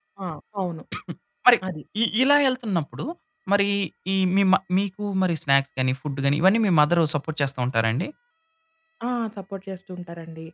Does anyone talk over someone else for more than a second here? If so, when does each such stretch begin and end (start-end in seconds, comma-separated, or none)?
none